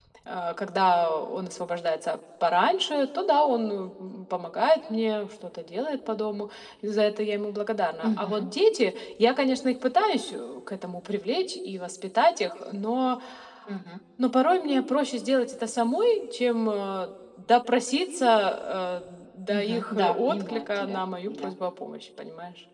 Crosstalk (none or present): present